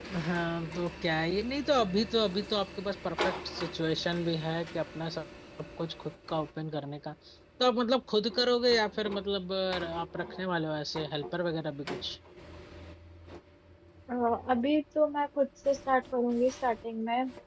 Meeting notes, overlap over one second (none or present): none